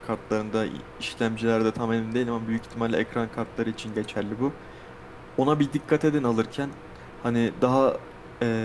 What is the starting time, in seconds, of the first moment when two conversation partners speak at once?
none

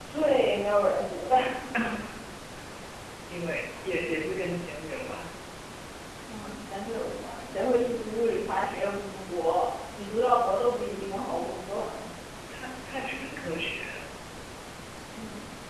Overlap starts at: none

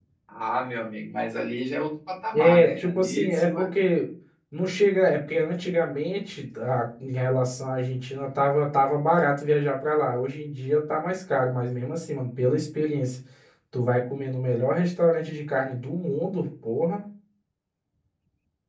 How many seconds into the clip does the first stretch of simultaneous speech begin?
2.3 s

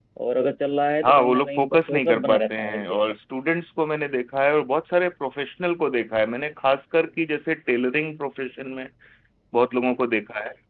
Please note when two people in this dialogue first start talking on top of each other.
1.0 s

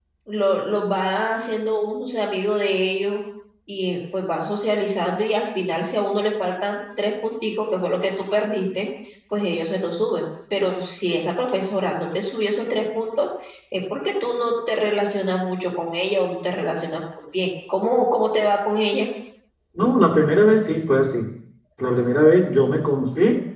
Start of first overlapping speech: none

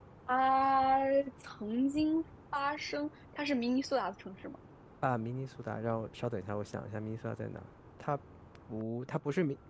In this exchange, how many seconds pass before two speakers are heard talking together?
none

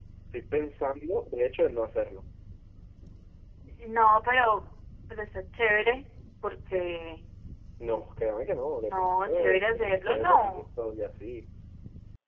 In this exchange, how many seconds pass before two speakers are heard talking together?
8.8 s

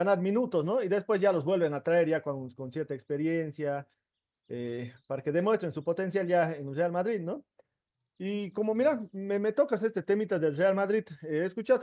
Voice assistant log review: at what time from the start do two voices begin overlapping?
none

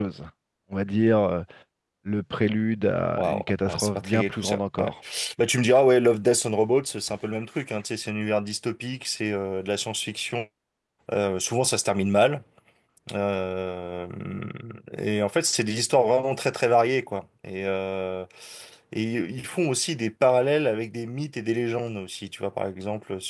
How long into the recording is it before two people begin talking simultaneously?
3.2 s

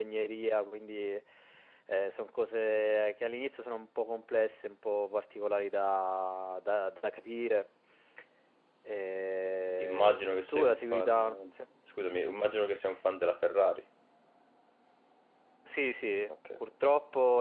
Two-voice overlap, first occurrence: 9.8 s

